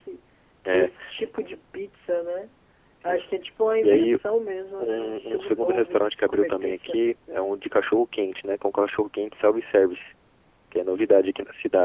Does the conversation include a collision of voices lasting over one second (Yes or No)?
Yes